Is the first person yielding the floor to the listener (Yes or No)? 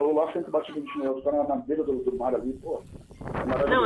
Yes